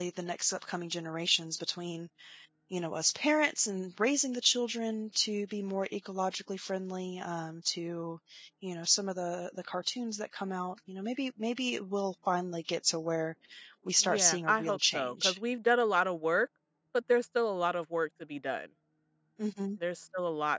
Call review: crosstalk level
present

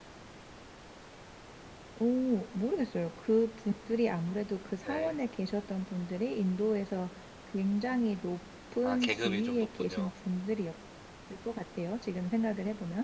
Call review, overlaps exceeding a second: present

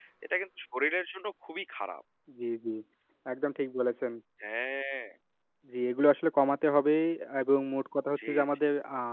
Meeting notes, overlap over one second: none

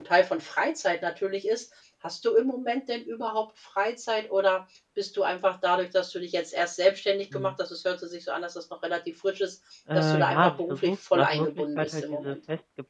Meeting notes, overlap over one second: present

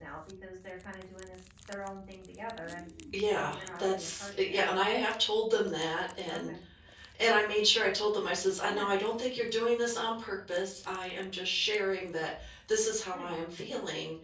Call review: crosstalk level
present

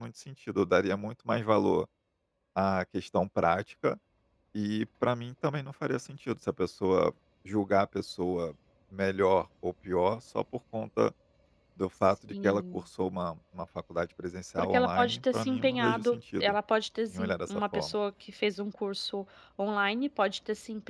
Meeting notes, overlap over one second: present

